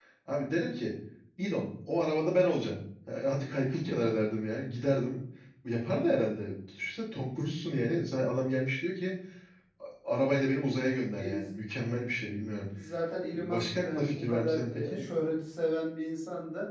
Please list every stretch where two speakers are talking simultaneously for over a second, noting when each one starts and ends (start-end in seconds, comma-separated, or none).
13.3-15.0